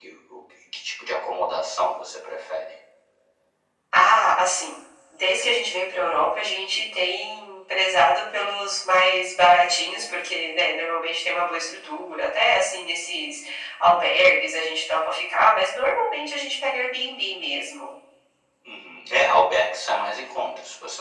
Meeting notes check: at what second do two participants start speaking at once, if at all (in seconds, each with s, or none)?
none